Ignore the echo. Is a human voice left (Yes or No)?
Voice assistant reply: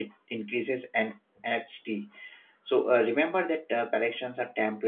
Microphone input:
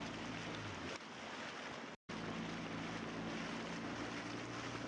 No